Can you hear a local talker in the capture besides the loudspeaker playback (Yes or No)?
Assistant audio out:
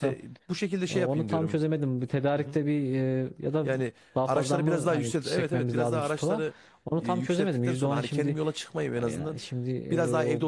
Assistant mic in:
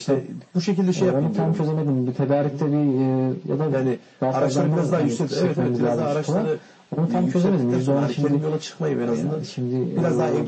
No